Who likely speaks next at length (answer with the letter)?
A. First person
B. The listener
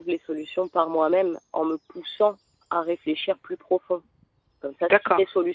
A